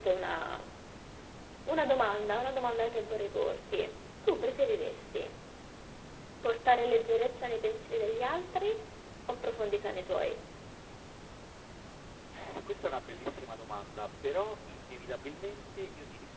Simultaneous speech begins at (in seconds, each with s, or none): none